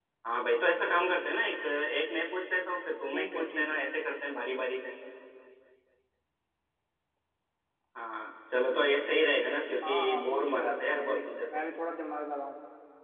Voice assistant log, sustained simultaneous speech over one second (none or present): present